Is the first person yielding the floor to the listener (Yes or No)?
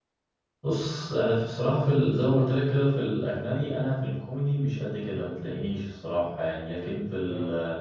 No